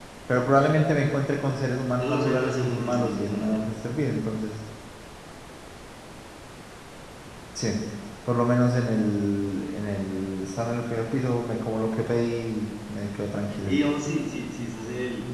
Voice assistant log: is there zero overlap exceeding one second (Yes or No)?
No